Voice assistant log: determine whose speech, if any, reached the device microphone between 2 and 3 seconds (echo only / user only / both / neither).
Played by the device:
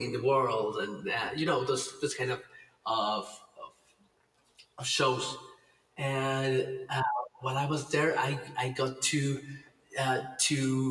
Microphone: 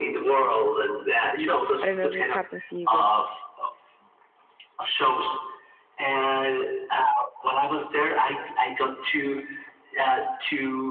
both